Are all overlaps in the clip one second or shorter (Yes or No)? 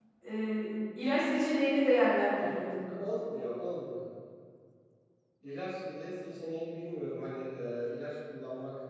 Yes